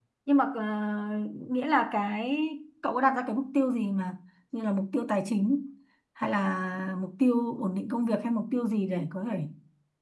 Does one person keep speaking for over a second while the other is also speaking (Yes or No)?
No